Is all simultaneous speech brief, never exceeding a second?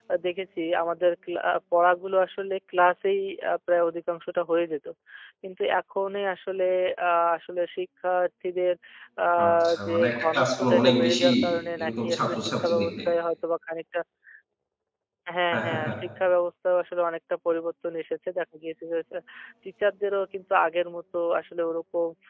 No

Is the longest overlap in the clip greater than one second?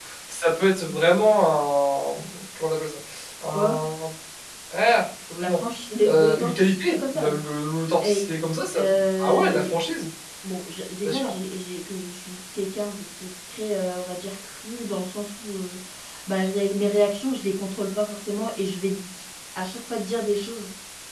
Yes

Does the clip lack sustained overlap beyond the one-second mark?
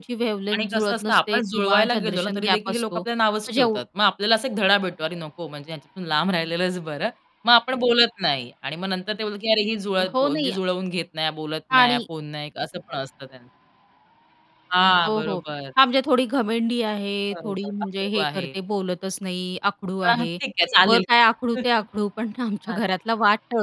No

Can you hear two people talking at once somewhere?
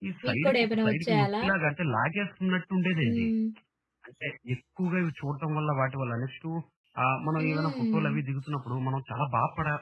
Yes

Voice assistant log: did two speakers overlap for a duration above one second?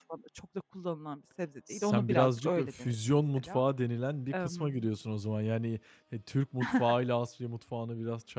Yes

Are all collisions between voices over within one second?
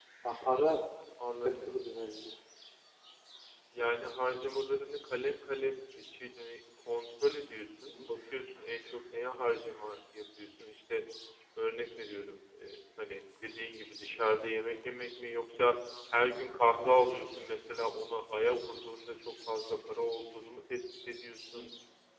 Yes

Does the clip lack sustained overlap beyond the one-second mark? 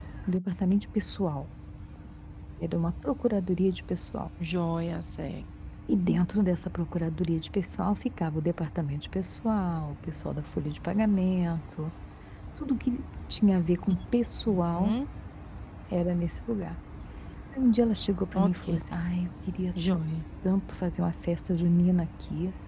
Yes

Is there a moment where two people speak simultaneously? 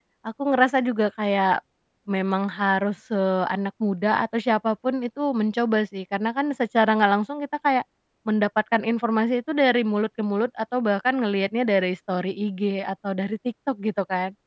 No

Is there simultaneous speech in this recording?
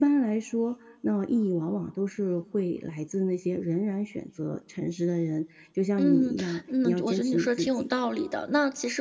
Yes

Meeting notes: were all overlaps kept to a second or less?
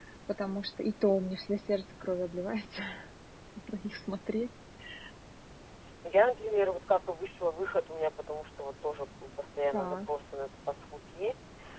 Yes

